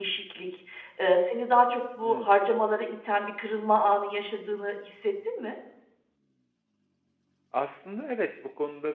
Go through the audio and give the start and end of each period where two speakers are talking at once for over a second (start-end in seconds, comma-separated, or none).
none